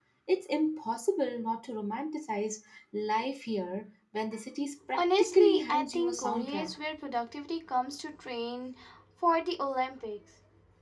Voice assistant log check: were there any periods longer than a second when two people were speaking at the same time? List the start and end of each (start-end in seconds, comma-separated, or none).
5.0-6.8